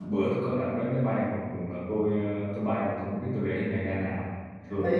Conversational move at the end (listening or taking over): taking over